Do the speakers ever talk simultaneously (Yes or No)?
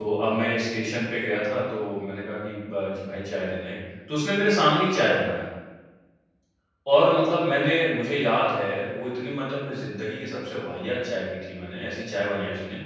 No